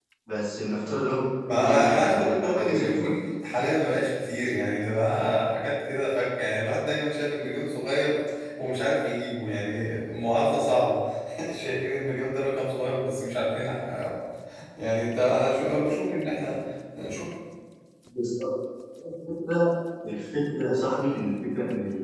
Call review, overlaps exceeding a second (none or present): present